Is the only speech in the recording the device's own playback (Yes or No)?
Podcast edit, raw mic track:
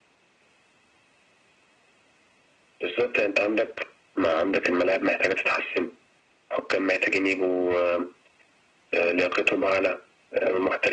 Yes